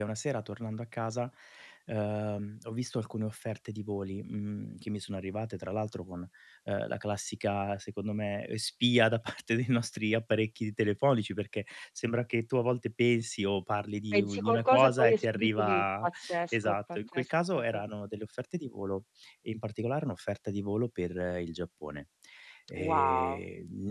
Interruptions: present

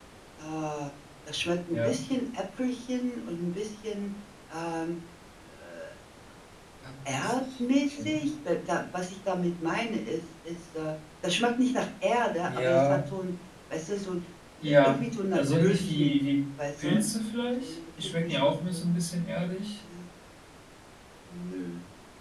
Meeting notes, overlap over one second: present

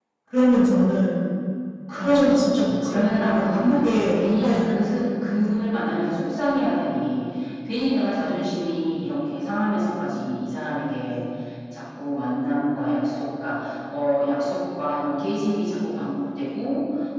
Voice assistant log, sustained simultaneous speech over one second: present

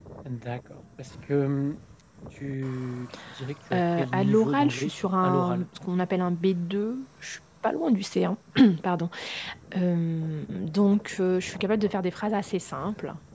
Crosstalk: present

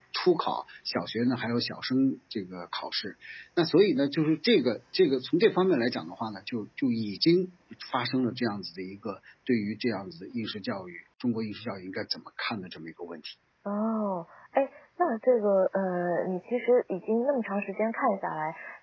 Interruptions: none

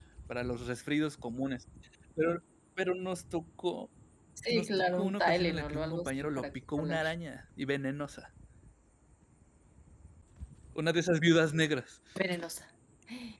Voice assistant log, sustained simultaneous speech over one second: present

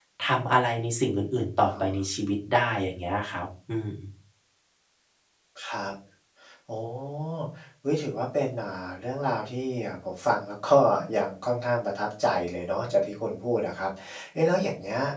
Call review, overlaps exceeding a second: none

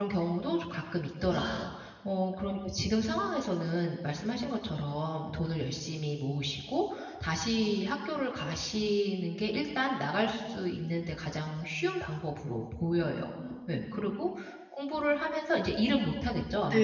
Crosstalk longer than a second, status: none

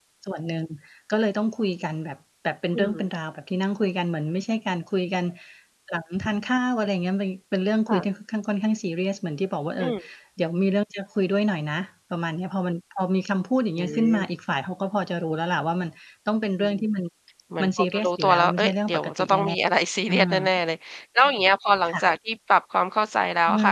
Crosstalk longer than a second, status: present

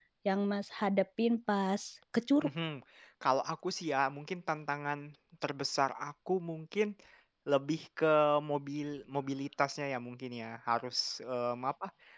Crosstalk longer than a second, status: none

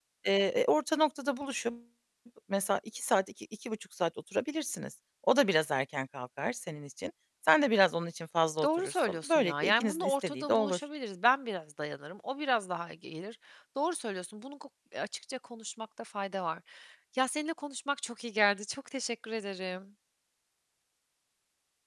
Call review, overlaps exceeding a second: present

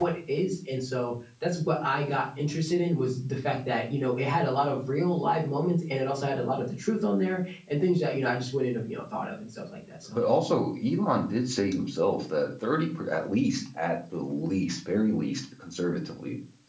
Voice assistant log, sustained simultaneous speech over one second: none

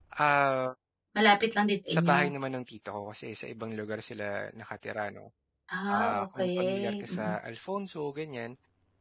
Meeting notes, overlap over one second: present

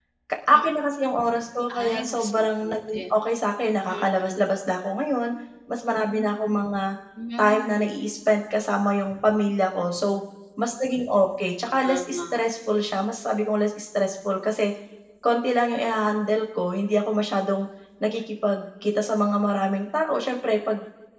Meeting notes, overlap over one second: present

